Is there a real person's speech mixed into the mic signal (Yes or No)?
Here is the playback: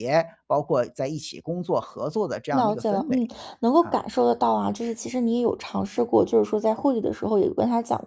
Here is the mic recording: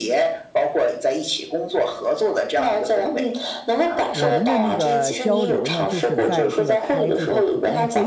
Yes